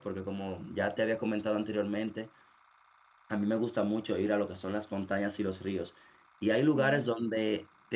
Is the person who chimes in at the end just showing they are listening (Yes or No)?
Yes